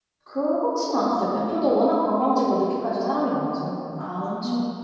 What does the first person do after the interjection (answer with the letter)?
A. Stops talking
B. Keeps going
A